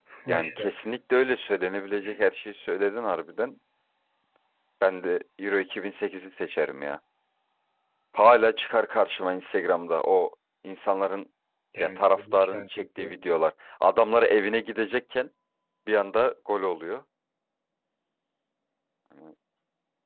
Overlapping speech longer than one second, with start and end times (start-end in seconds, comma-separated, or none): 11.8-13.1